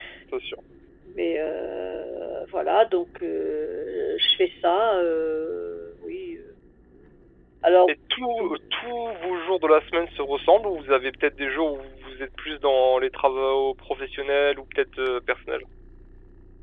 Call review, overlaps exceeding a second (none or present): none